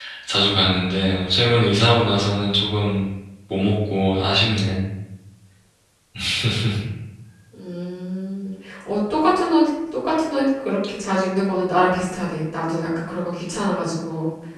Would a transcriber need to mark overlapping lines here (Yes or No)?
No